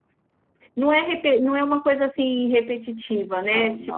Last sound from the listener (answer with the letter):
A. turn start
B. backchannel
B